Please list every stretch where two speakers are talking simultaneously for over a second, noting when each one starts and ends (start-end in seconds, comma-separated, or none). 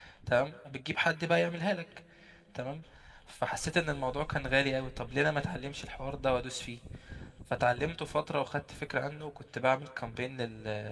none